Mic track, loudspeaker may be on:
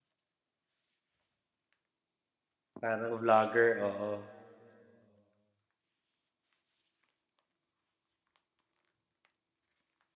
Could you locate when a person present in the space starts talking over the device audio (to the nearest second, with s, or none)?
3 s